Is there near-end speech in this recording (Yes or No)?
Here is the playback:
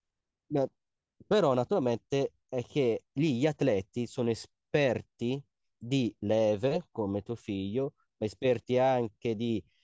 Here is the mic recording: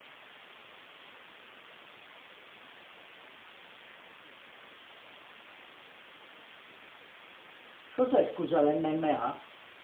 Yes